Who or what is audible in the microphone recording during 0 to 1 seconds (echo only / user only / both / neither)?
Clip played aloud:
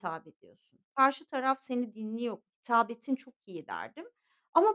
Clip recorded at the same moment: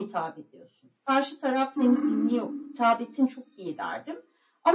echo only